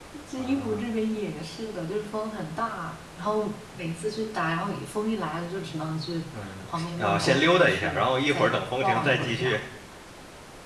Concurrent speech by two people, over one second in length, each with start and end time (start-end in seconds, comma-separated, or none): 6.7-9.6